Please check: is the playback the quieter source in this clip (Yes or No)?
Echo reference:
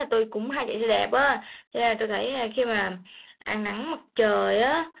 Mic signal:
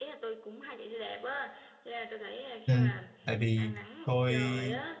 Yes